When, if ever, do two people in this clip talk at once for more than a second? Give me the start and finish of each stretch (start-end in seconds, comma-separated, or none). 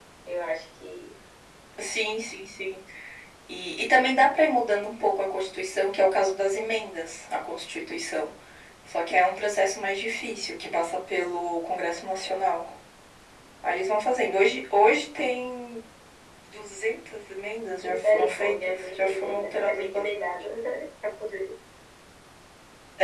17.8-20.3